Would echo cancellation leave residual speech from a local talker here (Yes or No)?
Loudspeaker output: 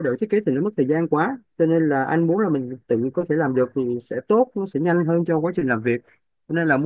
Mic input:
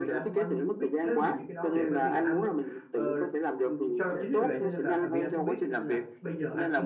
Yes